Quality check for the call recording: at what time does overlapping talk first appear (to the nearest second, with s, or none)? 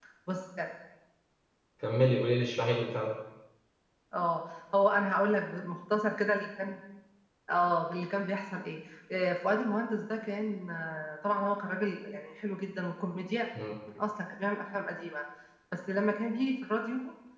none